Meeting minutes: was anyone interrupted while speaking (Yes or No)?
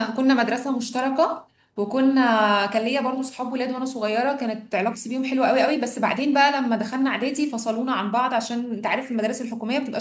No